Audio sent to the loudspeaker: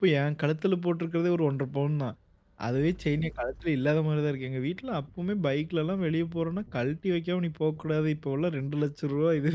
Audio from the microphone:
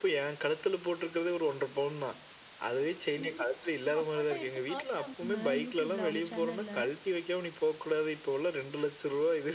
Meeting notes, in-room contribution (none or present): present